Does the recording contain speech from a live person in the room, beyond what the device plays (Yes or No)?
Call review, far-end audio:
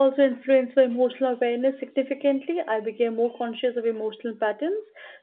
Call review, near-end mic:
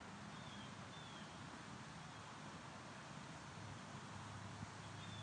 No